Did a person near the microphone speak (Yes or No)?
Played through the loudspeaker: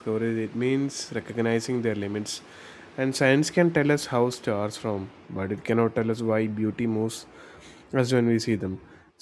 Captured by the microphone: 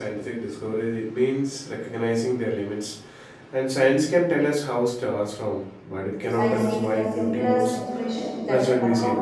Yes